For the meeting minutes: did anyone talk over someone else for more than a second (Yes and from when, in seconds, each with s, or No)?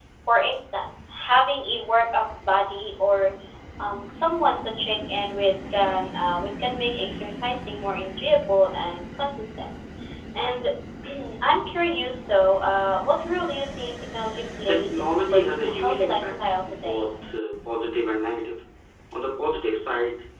Yes, from 14.7 s